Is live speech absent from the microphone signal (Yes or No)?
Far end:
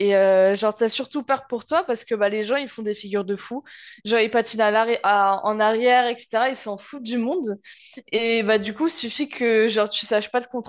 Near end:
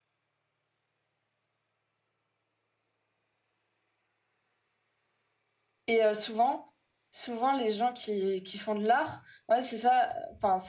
No